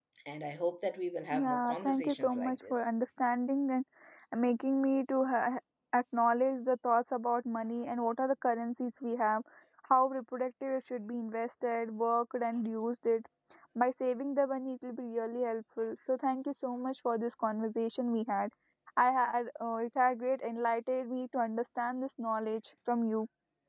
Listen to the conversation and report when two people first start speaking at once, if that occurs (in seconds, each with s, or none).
1.3 s